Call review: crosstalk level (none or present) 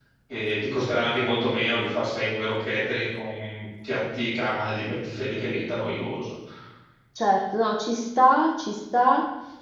none